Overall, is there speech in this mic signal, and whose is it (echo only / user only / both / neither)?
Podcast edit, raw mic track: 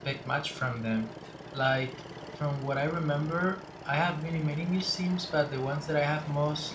user only